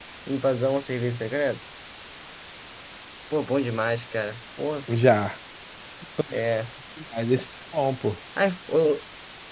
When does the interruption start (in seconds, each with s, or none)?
none